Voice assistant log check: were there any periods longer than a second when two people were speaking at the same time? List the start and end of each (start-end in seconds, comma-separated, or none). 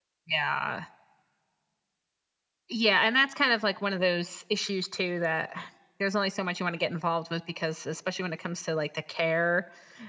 none